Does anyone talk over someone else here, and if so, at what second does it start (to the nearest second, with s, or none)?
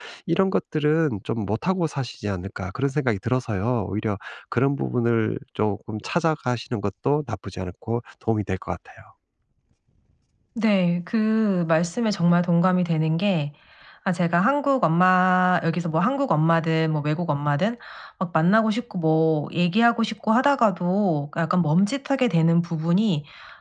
none